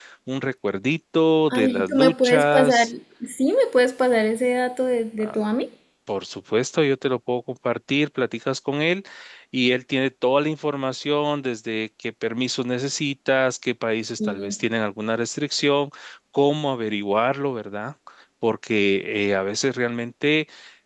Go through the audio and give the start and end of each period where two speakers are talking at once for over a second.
1.5-2.9

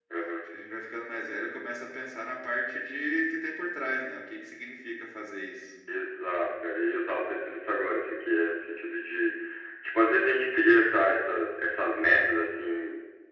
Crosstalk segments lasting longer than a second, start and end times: none

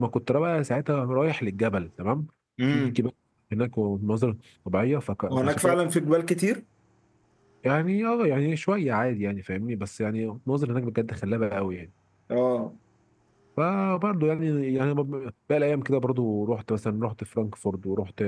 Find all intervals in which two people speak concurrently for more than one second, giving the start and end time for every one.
none

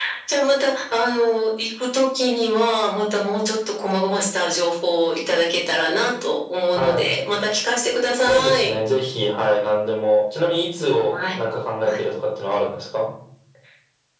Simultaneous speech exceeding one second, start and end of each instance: none

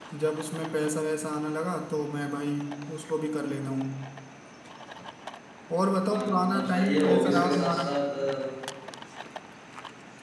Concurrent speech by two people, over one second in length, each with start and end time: 6.1-7.9

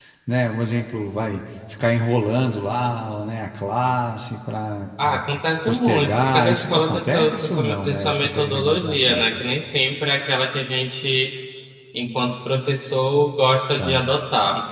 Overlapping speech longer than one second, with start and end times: 5.7-9.2

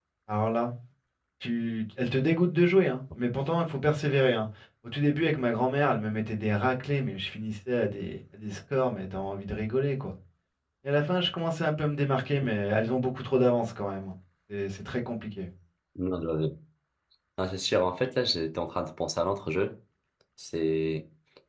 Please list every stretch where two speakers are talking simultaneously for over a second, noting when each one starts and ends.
none

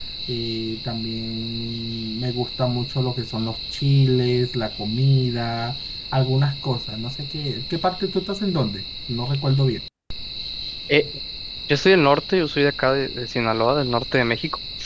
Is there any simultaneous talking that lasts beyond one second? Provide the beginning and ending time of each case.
none

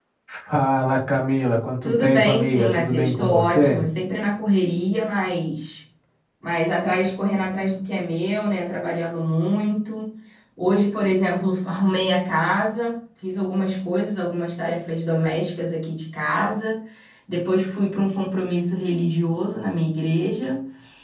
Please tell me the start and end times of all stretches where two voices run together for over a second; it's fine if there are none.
1.8-3.8

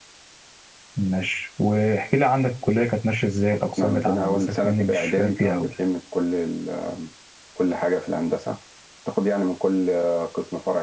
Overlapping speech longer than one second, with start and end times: 3.8-5.7

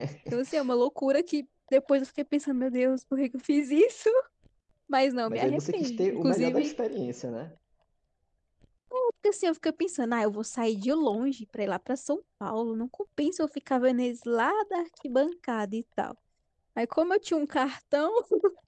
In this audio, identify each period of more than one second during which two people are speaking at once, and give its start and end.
5.3-6.7

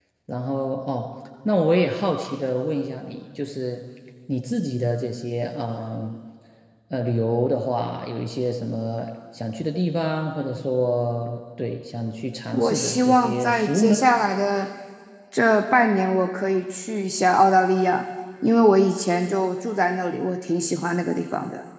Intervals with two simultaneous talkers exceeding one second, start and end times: 12.5-14.0

